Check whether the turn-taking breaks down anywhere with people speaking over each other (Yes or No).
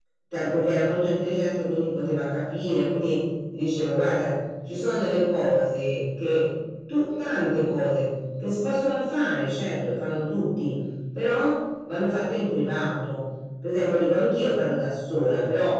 No